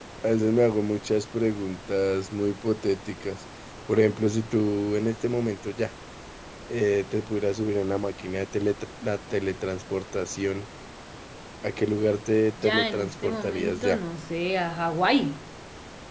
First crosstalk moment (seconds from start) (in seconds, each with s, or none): 12.6 s